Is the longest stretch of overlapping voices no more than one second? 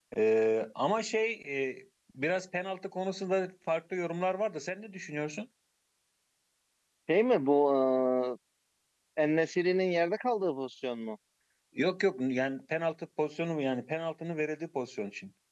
Yes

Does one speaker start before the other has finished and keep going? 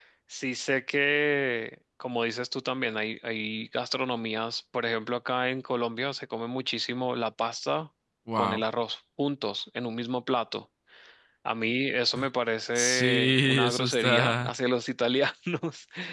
Yes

